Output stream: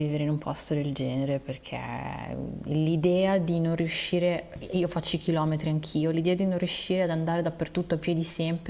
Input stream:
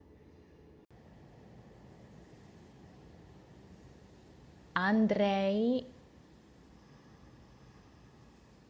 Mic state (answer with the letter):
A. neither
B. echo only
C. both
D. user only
D